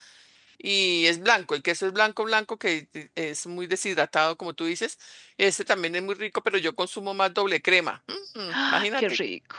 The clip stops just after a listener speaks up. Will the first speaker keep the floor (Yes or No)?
No